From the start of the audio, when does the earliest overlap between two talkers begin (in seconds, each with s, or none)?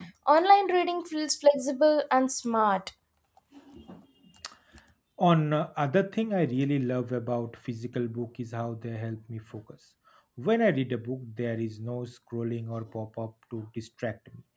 none